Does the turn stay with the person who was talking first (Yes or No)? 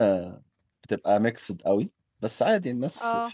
Yes